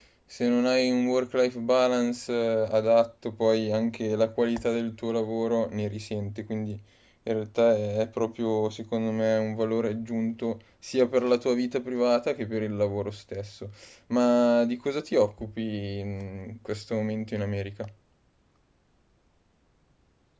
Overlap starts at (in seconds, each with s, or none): none